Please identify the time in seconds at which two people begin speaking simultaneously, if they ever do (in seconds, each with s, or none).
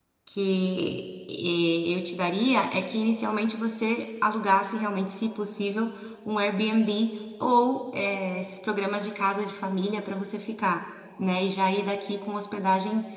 none